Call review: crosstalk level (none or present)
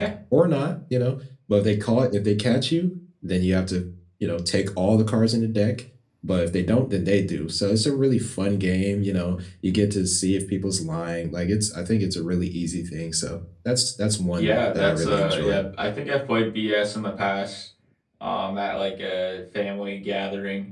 present